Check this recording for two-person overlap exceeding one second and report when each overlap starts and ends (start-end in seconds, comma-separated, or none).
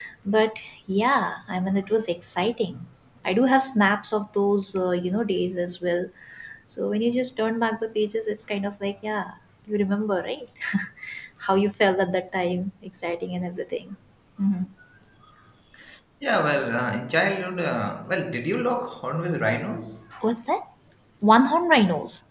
none